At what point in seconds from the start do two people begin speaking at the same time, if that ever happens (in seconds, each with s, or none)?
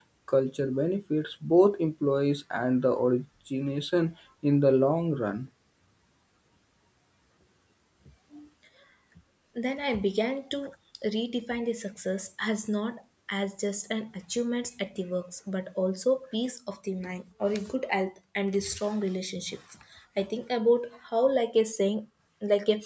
none